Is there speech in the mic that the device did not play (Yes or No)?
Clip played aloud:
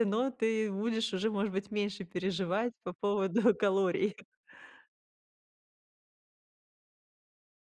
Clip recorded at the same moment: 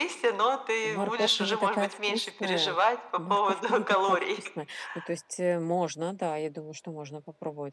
Yes